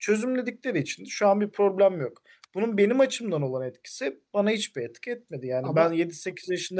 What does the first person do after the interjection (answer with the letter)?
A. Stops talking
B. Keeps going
B